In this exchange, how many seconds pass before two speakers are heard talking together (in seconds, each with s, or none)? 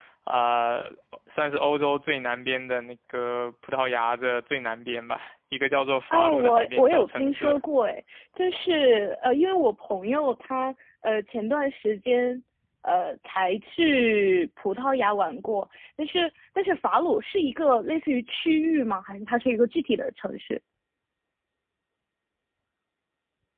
6.1 s